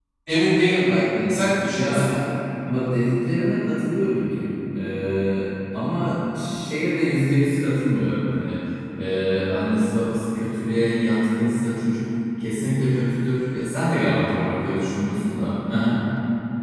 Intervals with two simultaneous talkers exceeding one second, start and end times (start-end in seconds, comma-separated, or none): none